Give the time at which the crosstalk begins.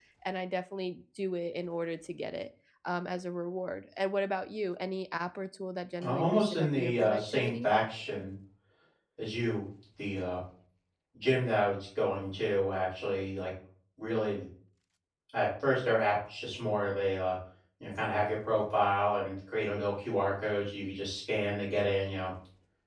6.0 s

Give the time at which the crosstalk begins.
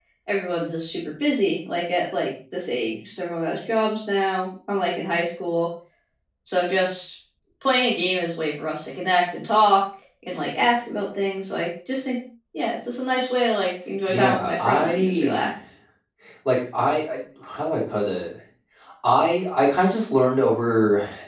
14.1 s

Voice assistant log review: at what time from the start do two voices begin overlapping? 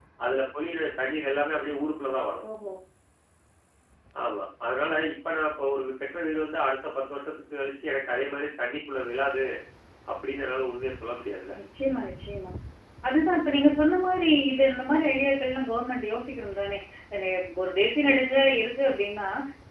none

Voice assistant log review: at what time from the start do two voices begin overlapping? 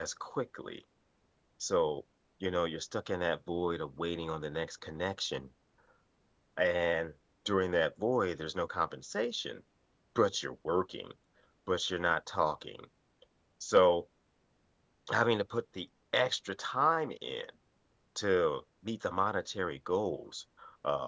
none

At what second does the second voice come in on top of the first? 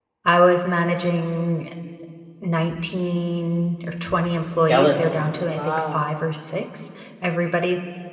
4.4 s

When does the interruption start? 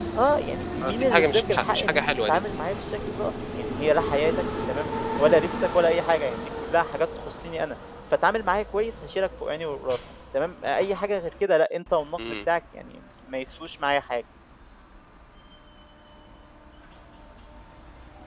0.8 s

